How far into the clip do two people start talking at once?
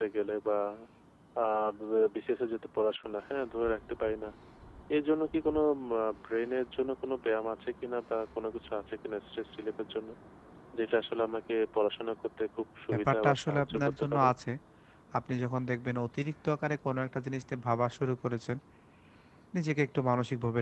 13 s

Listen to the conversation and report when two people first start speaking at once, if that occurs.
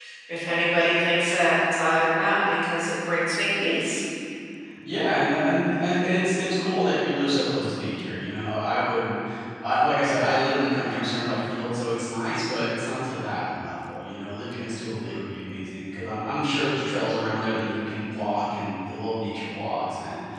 none

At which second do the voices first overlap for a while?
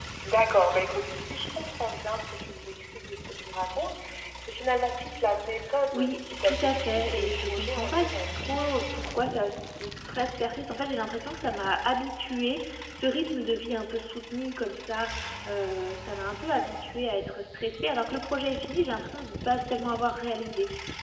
6 s

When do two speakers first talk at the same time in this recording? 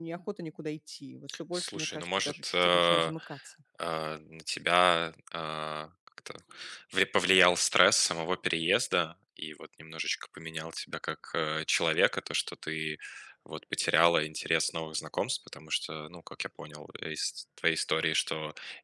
1 s

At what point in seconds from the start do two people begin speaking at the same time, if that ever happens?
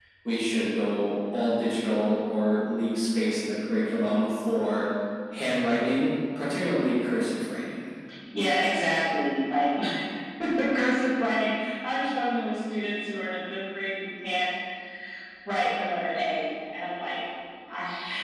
none

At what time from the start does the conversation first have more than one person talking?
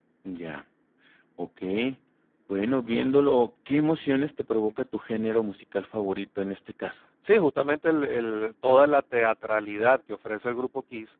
none

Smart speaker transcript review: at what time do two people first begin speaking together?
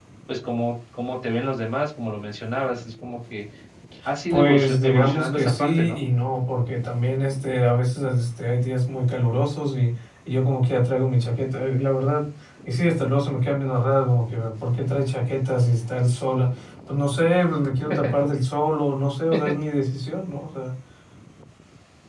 4 s

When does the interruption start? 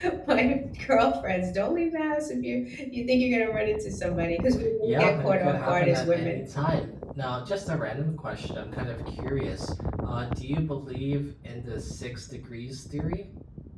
5 s

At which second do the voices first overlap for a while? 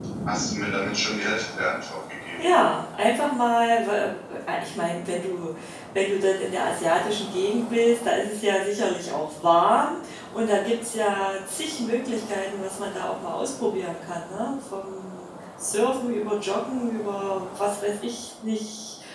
none

